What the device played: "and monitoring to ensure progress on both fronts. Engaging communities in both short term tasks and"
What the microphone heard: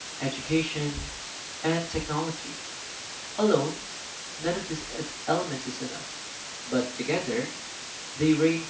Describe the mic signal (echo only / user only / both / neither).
user only